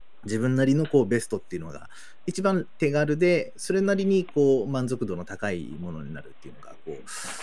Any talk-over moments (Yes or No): No